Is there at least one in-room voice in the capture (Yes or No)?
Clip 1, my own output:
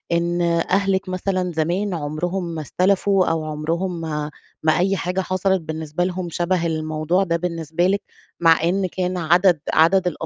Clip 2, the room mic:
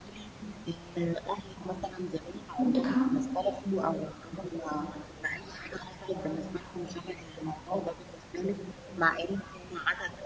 Yes